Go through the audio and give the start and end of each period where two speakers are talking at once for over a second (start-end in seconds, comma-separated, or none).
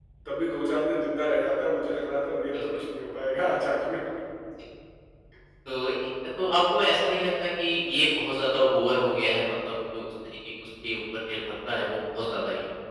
none